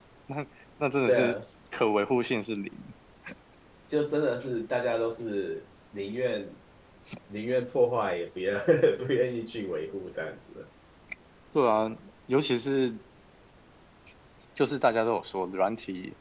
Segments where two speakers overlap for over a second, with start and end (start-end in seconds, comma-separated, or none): none